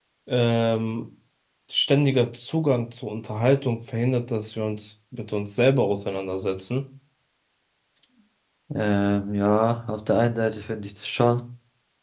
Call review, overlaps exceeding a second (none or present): none